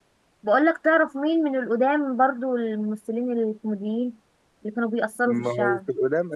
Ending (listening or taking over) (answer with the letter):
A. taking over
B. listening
A